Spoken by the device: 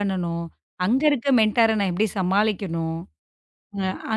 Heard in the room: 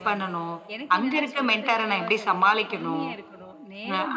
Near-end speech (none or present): present